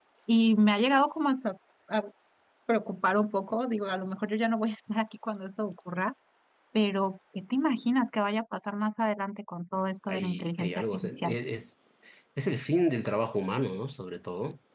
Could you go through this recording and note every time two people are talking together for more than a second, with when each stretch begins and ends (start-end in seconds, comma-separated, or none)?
10.1-11.3